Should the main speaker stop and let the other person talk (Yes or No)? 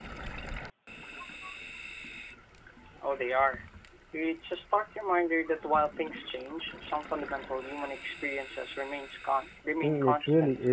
Yes